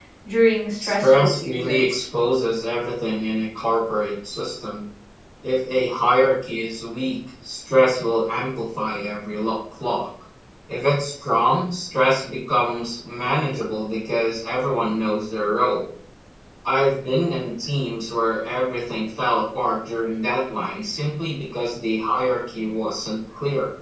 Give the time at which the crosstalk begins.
0.8 s

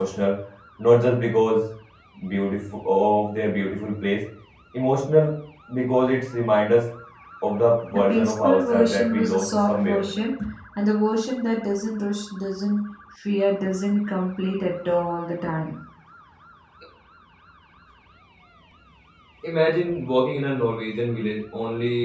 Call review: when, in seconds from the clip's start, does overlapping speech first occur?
7.9 s

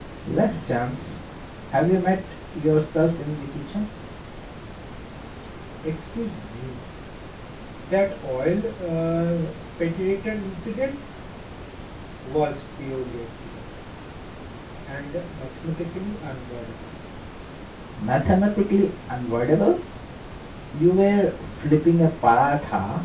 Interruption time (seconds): none

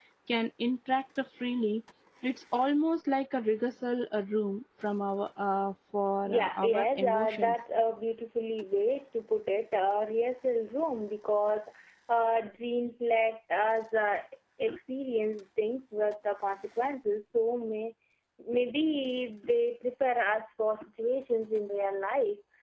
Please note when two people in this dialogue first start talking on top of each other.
6.3 s

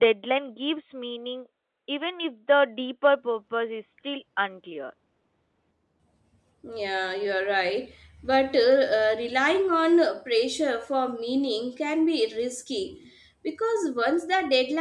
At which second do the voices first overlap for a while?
none

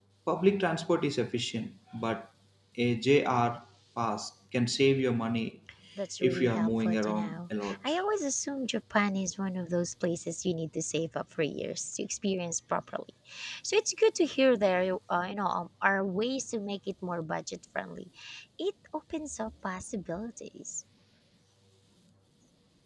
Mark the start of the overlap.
6.2 s

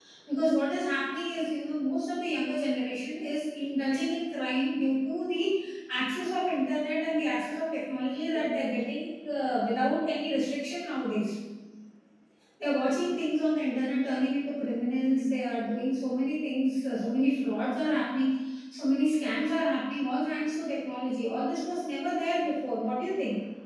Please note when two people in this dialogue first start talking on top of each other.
none

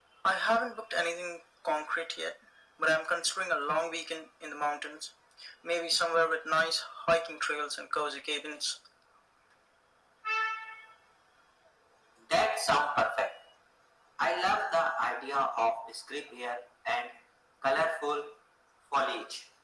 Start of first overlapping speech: none

